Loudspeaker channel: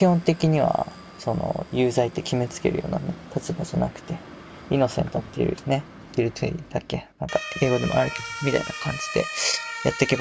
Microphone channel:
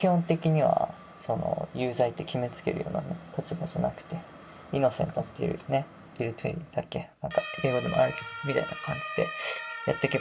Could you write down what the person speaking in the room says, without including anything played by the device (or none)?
none